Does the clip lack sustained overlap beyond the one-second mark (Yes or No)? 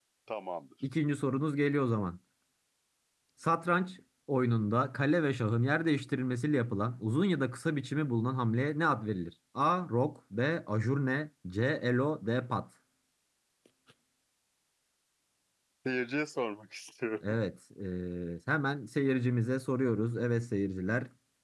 Yes